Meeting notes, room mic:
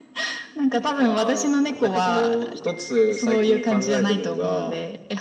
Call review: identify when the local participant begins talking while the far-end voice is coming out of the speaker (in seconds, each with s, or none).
none